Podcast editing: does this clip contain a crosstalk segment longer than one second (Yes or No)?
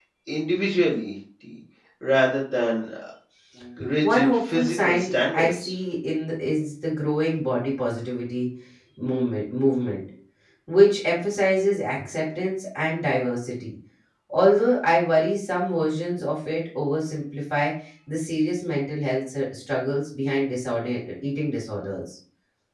Yes